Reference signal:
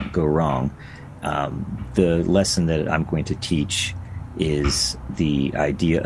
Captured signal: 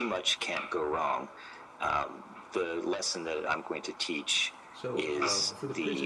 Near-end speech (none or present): present